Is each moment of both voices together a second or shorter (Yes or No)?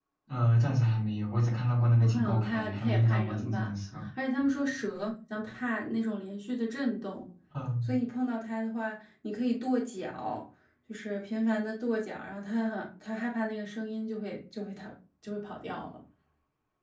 No